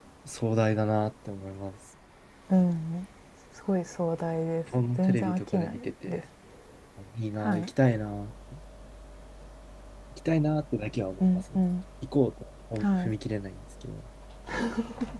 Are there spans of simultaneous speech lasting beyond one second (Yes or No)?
Yes